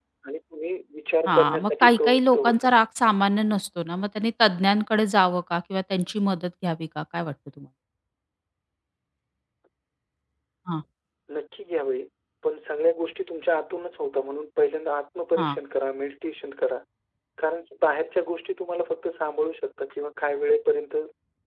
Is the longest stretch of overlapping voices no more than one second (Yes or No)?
No